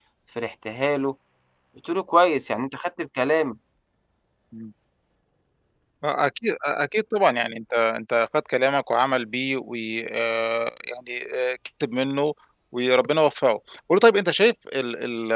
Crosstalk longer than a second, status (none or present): none